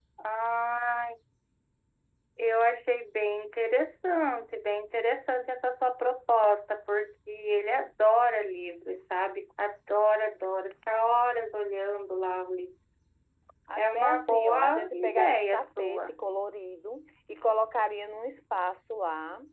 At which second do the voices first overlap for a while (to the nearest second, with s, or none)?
14 s